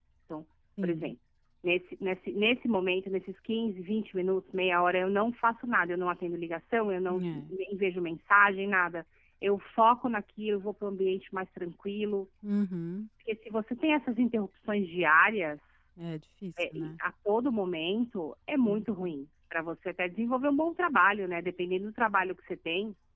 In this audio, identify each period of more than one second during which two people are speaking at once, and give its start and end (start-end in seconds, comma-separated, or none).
none